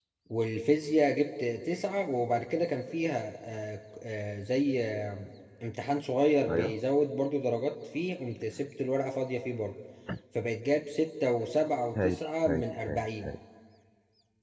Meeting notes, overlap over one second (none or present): present